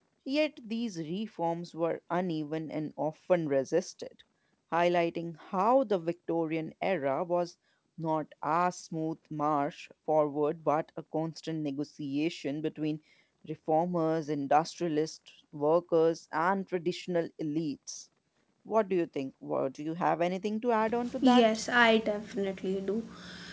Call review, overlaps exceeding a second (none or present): none